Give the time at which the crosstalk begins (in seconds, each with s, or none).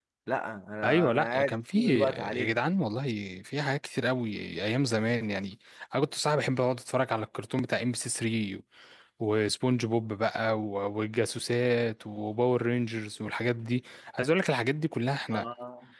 0.8 s